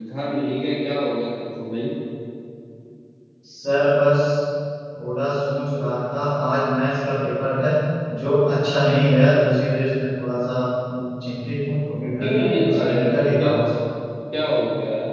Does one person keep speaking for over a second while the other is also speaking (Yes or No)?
Yes